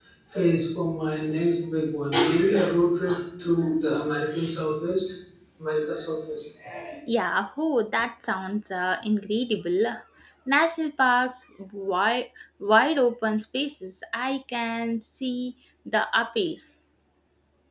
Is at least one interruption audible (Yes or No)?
No